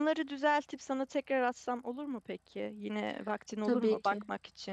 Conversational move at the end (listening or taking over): listening